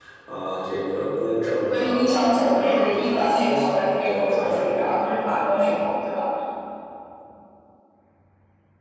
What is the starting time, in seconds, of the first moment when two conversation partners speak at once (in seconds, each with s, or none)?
1.7 s